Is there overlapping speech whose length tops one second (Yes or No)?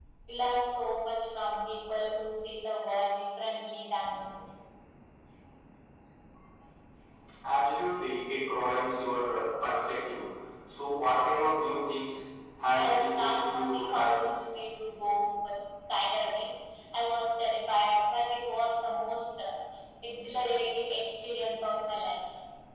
Yes